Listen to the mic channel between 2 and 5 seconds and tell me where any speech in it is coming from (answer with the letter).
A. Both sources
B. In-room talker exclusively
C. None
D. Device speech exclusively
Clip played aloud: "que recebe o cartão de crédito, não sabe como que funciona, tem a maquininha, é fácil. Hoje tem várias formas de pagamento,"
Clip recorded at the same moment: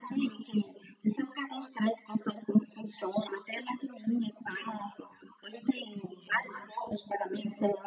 D